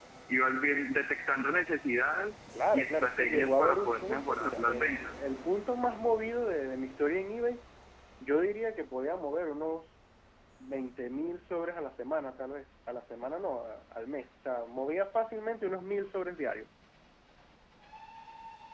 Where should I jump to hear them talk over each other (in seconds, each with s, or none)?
2.5 s